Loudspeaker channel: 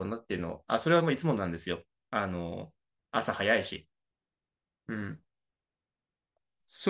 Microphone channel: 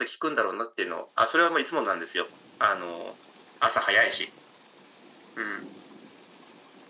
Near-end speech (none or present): none